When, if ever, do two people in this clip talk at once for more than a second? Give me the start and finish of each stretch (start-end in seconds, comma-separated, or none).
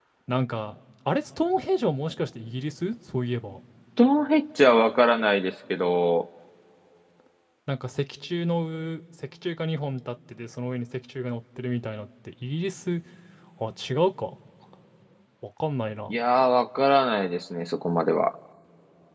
none